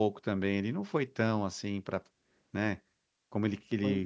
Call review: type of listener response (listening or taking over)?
listening